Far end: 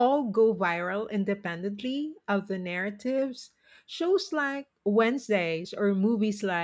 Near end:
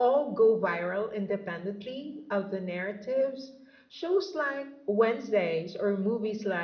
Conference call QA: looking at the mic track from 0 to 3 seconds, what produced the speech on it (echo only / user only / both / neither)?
echo only